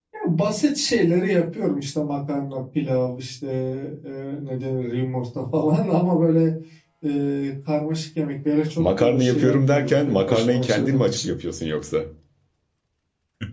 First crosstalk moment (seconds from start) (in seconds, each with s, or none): 8.8 s